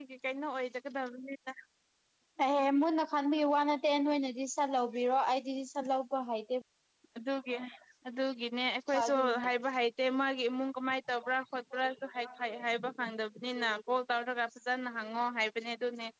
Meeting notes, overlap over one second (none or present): none